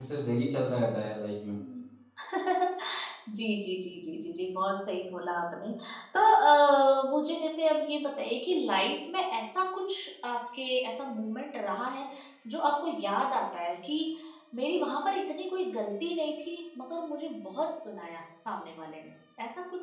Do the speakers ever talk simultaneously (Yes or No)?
No